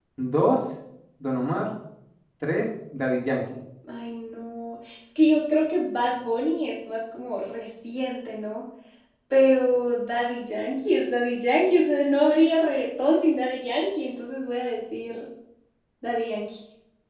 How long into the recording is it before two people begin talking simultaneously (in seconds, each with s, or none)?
none